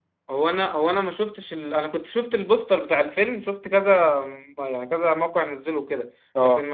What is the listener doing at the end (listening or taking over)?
listening